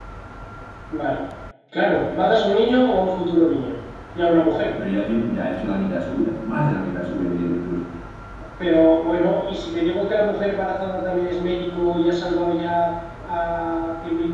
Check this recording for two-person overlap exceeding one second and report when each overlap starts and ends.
none

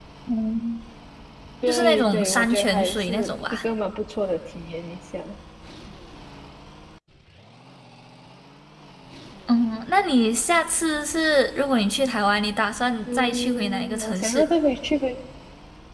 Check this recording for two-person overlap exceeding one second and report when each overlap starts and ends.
1.7-3.6, 13.1-14.5

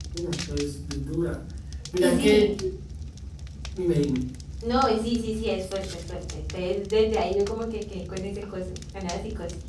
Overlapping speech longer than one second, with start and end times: none

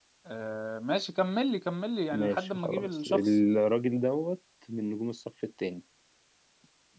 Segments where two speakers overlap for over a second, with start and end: 2.1-3.4

